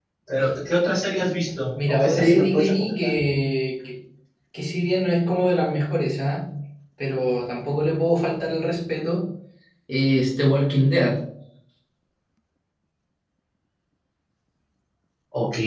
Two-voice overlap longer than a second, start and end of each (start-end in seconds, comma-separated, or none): 1.9-3.1